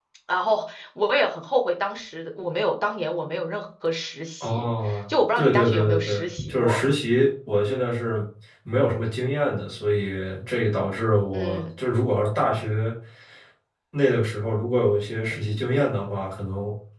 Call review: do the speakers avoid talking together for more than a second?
No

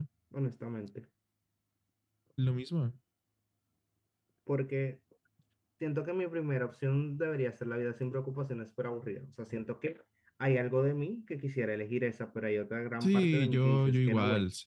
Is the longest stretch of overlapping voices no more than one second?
No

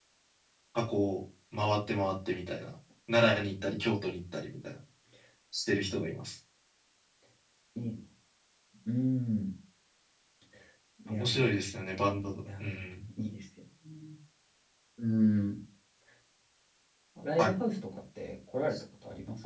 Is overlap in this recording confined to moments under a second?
Yes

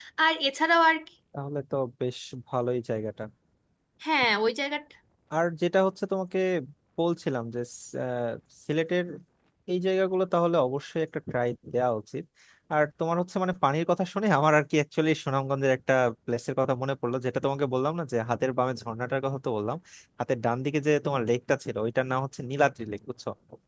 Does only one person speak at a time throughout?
Yes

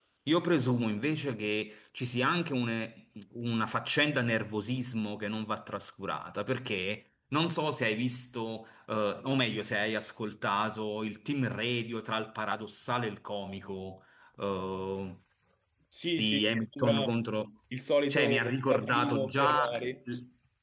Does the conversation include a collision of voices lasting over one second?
Yes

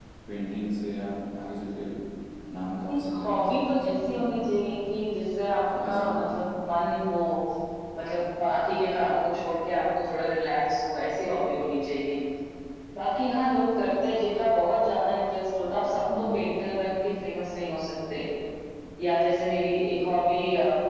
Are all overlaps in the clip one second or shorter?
No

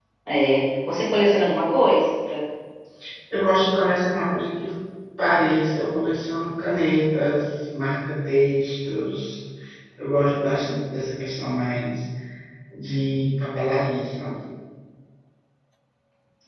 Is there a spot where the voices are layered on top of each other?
No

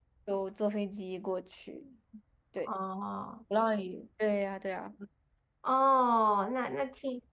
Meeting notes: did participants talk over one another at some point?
No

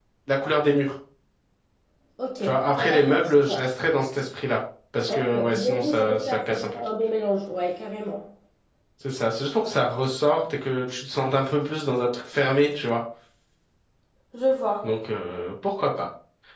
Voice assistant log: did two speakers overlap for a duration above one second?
Yes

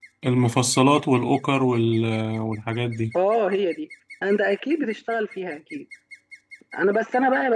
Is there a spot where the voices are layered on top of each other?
No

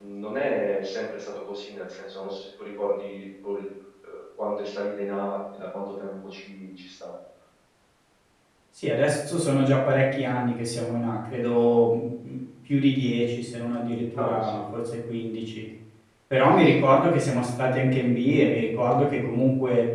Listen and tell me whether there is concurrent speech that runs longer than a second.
No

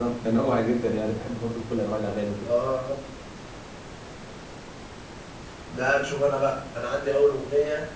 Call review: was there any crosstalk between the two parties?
No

